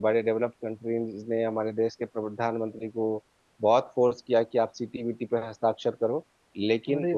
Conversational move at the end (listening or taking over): listening